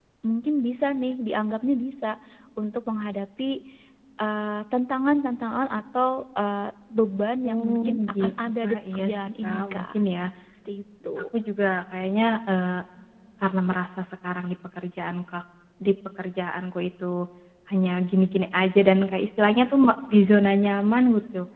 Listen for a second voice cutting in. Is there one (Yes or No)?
Yes